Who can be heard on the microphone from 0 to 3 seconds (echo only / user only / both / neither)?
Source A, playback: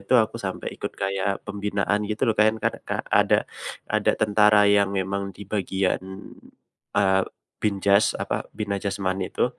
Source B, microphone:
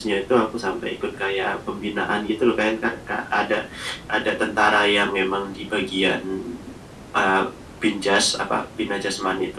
echo only